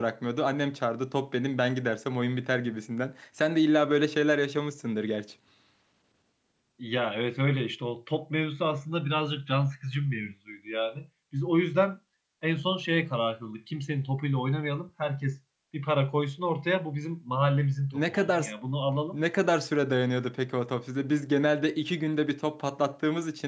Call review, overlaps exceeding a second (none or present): none